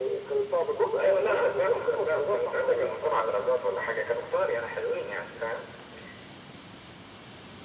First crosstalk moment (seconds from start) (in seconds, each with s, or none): 1.0 s